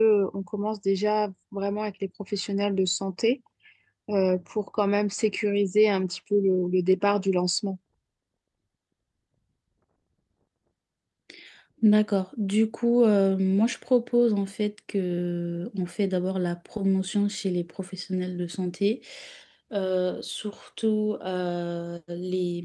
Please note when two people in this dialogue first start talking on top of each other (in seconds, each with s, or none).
none